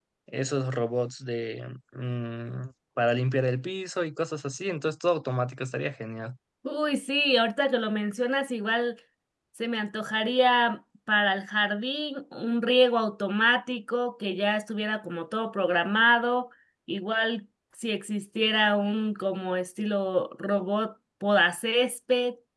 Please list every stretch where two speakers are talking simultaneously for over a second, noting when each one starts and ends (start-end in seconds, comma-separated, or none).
none